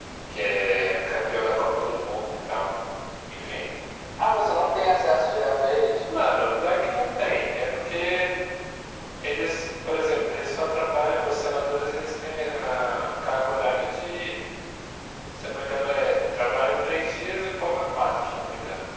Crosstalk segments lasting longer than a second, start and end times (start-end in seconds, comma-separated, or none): none